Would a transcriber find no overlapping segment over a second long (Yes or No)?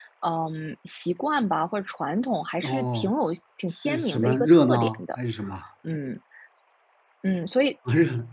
No